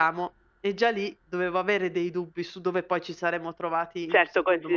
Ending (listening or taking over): taking over